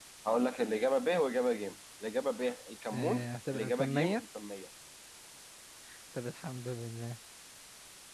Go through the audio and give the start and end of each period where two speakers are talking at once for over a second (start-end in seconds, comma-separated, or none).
2.9-4.2